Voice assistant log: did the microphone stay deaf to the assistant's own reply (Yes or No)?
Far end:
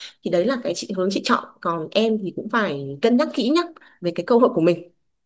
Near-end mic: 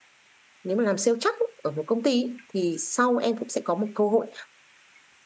Yes